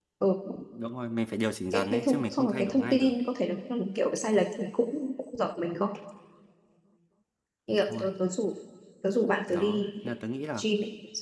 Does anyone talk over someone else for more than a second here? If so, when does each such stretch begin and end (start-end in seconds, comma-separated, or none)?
1.7-3.1